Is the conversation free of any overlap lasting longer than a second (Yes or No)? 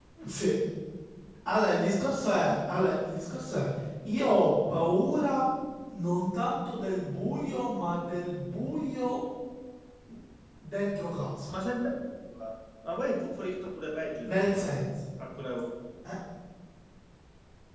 Yes